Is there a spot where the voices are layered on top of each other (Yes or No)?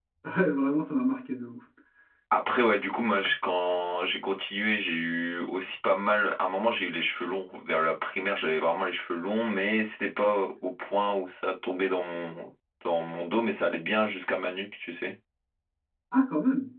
No